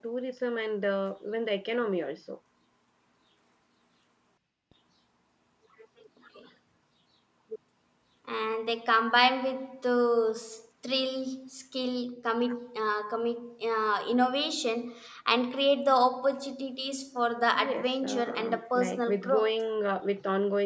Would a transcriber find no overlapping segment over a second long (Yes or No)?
No